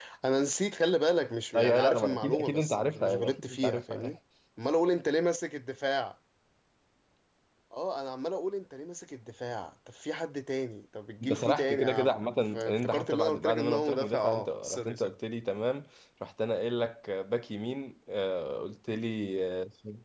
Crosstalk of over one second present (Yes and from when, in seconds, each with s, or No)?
Yes, from 1.6 s